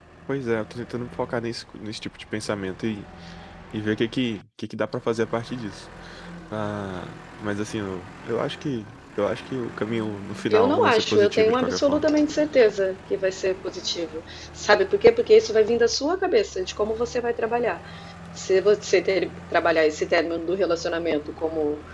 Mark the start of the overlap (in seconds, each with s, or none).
10.5 s